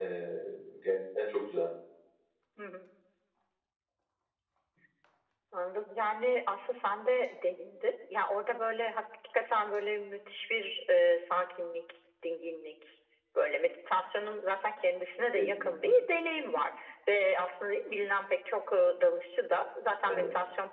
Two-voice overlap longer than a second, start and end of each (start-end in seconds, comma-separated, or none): none